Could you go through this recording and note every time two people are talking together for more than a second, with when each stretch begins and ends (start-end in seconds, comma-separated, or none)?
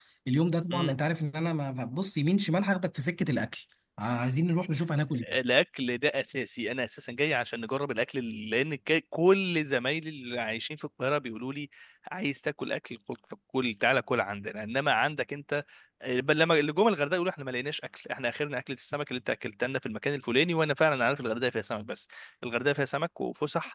none